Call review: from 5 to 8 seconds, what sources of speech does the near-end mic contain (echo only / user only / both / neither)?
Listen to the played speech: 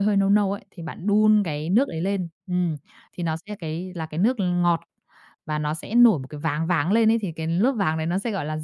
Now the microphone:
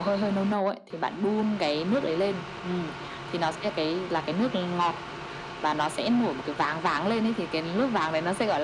echo only